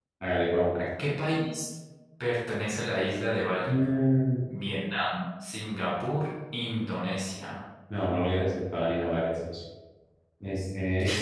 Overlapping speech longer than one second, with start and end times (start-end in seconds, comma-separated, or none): none